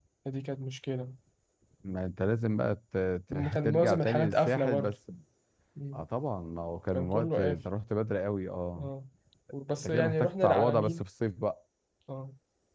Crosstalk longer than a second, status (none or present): present